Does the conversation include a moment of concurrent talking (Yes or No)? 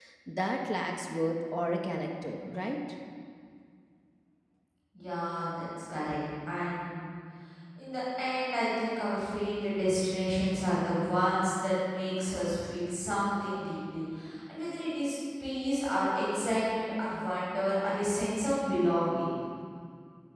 No